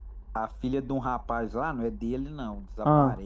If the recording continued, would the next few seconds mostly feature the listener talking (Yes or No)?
No